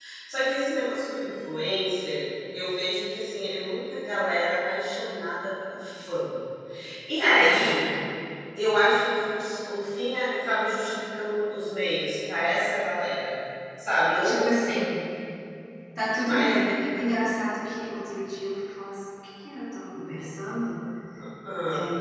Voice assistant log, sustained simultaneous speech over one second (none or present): none